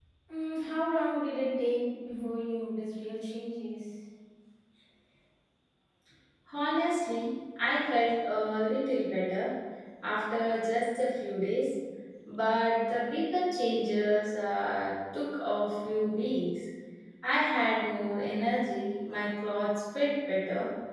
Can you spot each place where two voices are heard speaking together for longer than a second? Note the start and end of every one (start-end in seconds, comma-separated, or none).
none